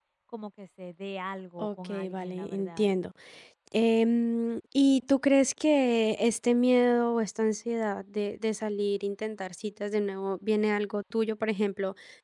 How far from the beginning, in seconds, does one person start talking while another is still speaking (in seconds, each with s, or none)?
1.6 s